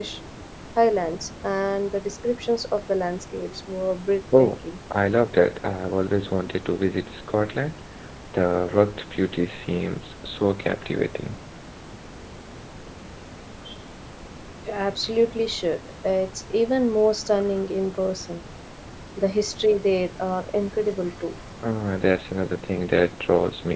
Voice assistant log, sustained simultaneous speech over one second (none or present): none